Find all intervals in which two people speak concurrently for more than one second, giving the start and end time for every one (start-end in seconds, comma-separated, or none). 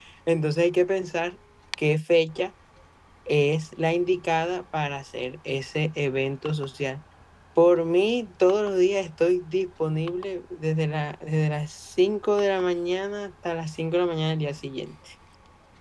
none